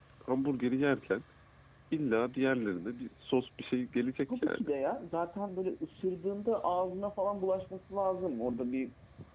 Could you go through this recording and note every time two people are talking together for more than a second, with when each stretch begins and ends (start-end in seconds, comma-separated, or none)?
none